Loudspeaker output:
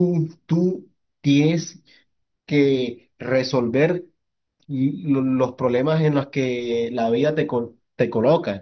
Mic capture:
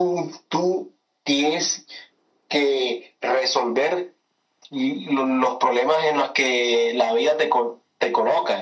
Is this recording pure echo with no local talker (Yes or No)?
Yes